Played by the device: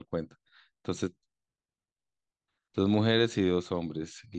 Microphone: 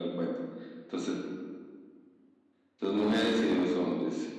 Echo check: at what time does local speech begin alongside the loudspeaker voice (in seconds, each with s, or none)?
none